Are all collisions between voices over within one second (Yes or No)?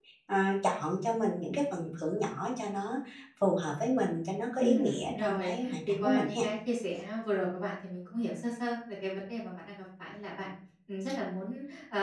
No